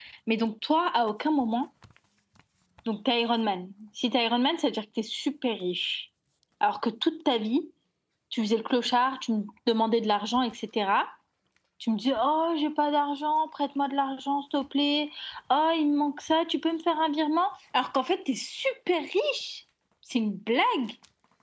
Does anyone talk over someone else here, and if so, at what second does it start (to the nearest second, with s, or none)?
none